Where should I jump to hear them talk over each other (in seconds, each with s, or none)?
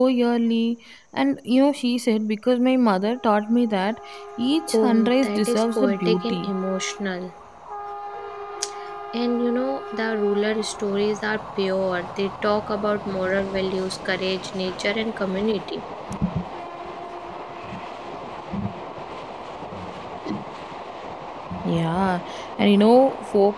4.7 s